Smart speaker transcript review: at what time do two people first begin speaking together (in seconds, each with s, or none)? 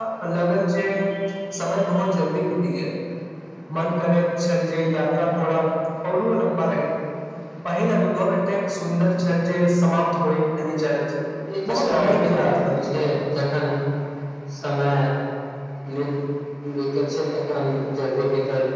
11.7 s